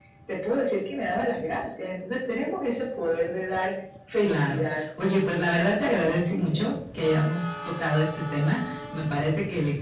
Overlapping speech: Yes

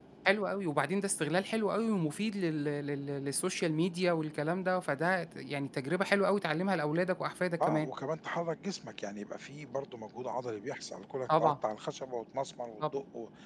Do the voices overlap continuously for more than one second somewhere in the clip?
No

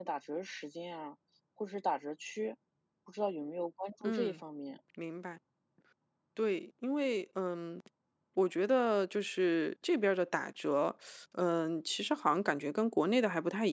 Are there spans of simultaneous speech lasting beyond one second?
No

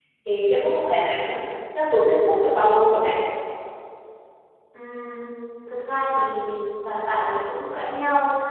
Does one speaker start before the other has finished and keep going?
No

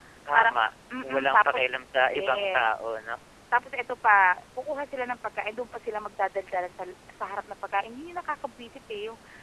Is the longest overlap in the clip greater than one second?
Yes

